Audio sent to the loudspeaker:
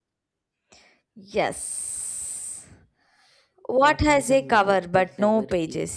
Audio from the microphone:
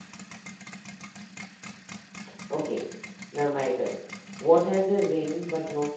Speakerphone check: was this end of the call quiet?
No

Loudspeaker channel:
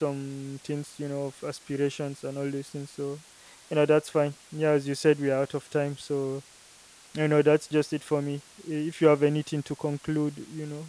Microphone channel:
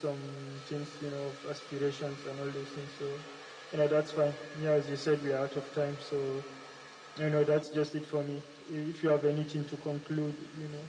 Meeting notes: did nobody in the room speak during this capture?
Yes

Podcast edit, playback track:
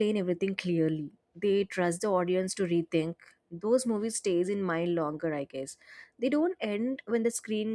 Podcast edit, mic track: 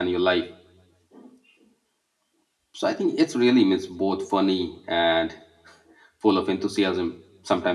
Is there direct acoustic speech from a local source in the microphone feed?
Yes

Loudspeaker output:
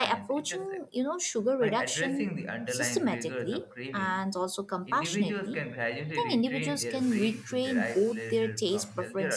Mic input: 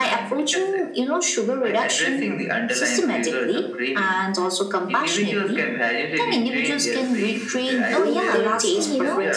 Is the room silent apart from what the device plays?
No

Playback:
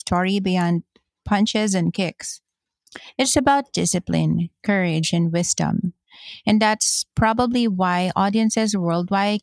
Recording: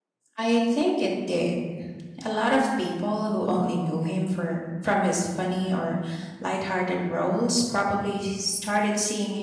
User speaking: Yes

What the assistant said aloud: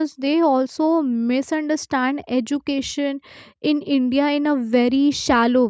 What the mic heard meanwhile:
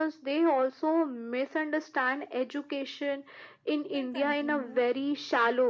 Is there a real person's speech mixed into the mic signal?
Yes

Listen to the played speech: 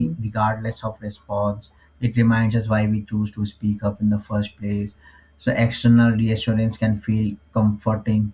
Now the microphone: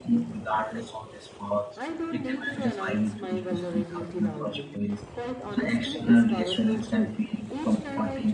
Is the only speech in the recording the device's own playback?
No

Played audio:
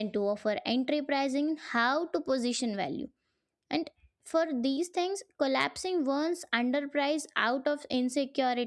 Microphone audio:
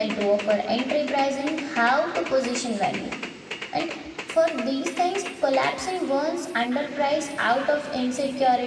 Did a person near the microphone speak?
No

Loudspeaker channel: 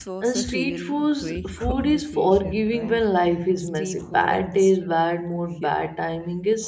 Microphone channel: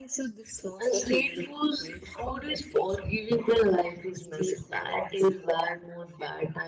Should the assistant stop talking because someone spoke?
No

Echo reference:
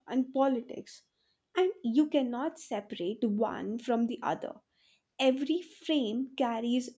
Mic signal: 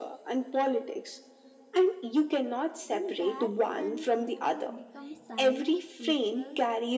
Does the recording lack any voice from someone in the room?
No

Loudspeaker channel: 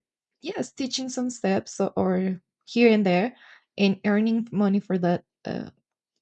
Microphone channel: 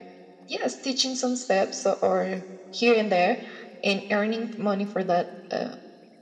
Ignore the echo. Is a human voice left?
No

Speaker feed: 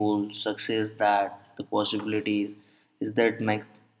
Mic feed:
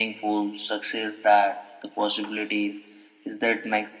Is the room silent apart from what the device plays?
Yes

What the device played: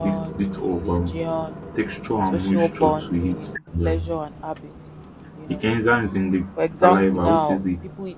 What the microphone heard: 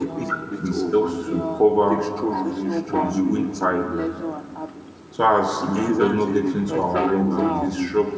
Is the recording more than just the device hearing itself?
Yes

